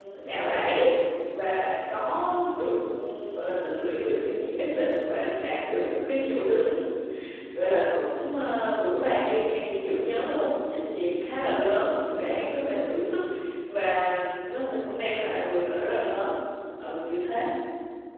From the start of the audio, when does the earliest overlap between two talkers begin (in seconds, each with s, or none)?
none